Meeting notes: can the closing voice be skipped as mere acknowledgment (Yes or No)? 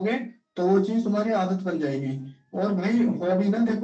Yes